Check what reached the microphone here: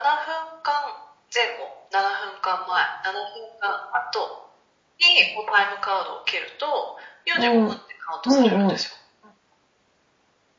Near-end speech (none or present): present